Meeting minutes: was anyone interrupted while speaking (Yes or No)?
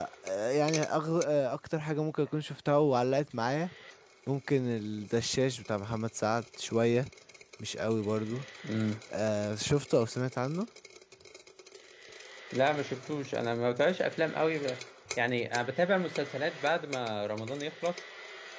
No